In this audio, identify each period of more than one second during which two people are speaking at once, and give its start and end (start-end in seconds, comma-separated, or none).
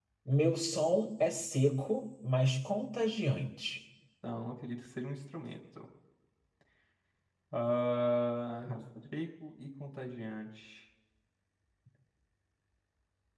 none